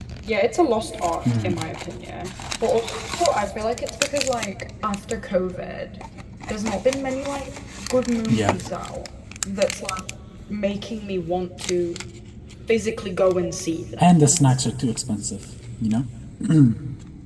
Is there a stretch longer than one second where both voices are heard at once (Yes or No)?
No